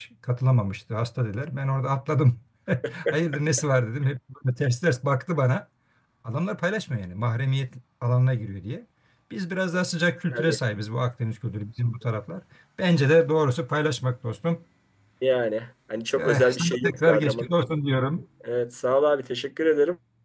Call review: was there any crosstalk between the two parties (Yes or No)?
Yes